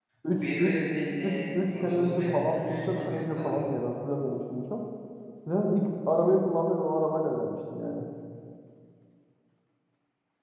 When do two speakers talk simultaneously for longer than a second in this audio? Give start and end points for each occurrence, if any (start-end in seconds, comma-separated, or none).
1.2-3.7